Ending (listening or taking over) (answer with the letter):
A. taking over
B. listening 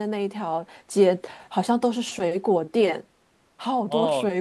A